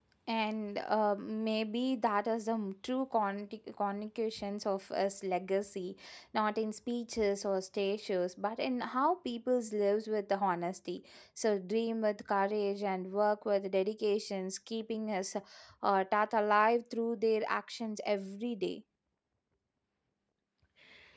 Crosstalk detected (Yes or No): No